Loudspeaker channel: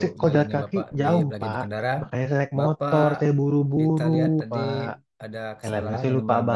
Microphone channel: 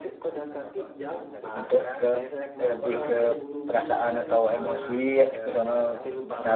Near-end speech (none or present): present